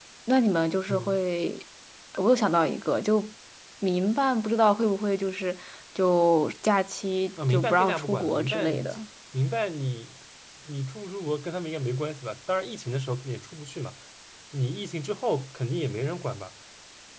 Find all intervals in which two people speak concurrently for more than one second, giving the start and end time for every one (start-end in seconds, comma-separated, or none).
7.5-8.9